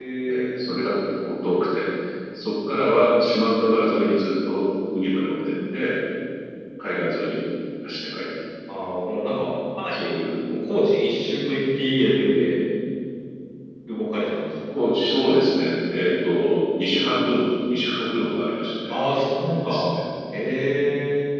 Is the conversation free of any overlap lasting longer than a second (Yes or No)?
Yes